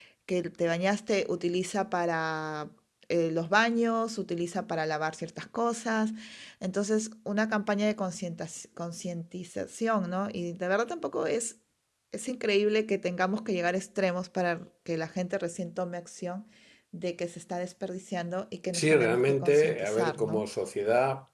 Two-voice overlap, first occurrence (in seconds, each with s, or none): 18.7 s